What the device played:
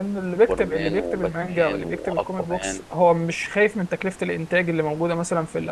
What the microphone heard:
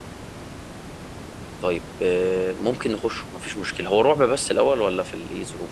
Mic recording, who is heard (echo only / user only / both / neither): user only